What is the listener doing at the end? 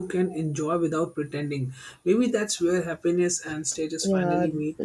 taking over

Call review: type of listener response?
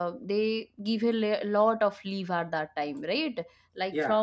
listening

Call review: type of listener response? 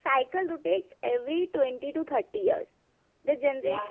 listening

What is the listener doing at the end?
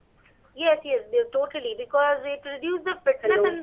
listening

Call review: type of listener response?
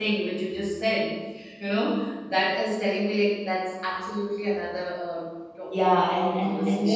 taking over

